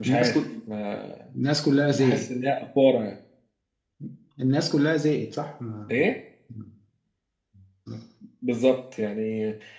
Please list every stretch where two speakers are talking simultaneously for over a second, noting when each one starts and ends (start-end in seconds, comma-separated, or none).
none